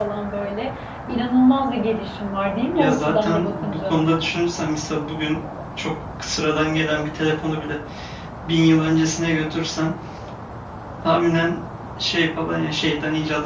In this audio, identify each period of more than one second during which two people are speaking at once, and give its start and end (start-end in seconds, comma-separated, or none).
2.7-4.0